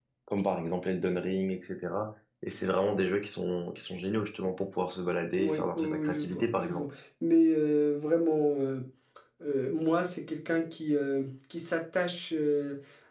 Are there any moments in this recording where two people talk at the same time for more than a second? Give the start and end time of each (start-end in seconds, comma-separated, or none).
5.4-6.9